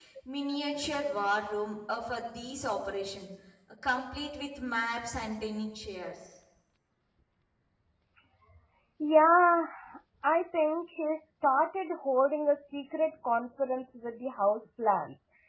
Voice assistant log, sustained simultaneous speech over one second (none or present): none